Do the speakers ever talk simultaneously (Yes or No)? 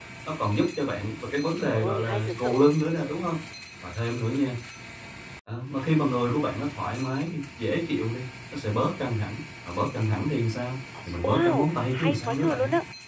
Yes